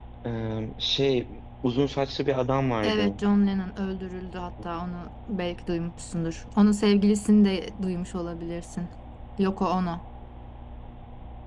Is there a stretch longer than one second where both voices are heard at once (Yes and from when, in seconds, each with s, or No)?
No